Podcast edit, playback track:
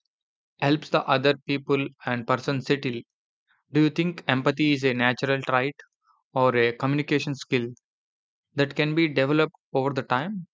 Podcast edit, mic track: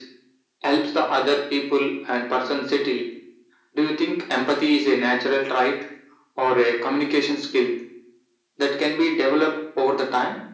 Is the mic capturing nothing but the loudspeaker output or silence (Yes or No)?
Yes